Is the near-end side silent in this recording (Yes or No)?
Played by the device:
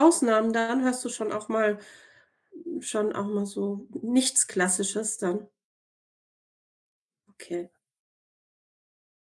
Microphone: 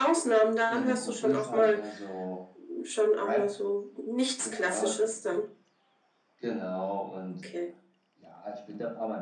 No